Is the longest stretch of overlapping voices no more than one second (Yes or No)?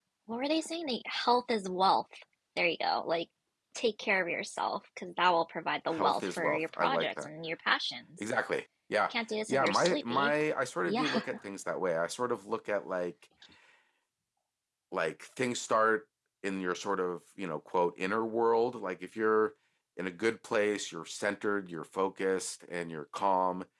No